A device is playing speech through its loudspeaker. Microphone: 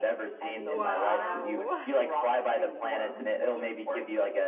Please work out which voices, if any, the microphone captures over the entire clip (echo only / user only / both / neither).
both